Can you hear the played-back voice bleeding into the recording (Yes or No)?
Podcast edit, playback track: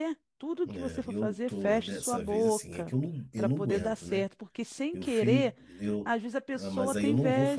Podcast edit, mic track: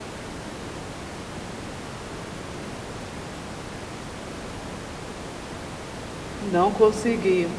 No